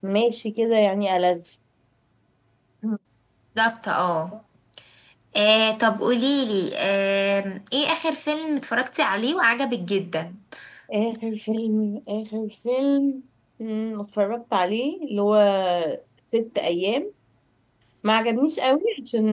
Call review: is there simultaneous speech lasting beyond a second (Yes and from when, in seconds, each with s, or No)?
No